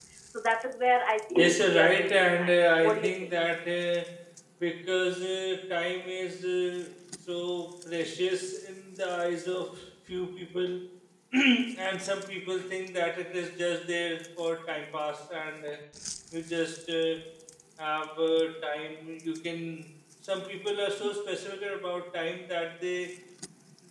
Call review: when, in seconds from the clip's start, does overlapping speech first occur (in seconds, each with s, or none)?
1.4 s